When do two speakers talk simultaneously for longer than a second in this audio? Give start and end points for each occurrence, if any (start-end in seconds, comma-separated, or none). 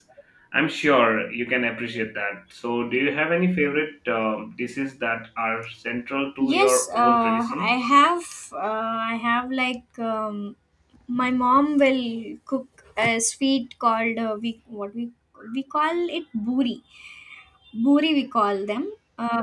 6.4-7.8